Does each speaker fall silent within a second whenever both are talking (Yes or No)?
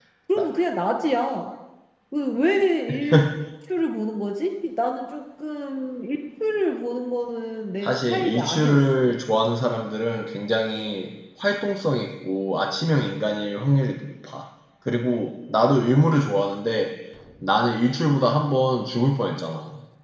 No